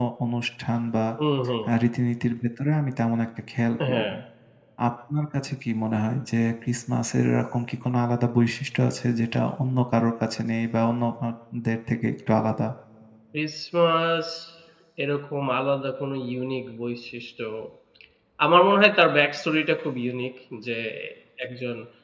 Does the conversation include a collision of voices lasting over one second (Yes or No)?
No